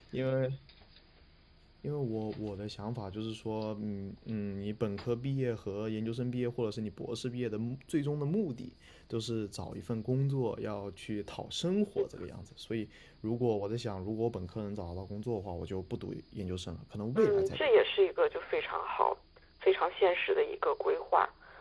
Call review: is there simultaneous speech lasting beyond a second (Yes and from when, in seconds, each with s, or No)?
No